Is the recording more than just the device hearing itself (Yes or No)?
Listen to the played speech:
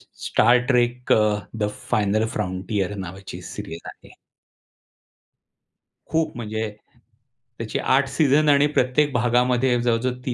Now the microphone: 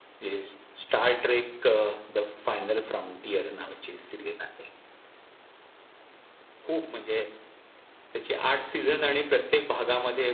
No